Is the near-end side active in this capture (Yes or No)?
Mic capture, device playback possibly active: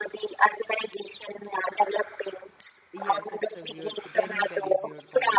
Yes